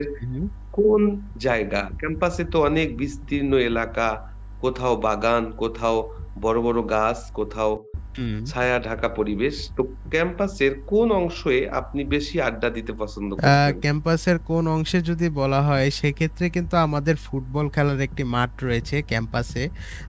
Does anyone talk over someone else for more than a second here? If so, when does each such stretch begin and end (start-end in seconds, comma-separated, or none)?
none